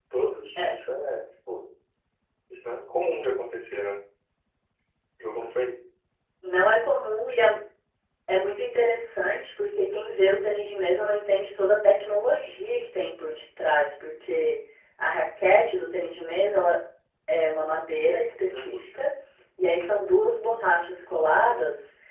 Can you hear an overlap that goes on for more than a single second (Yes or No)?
No